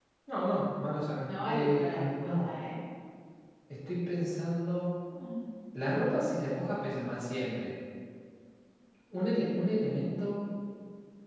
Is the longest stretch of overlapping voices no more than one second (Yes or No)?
No